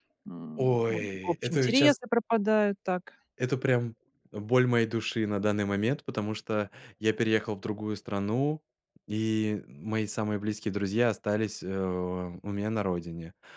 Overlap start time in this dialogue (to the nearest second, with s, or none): 1 s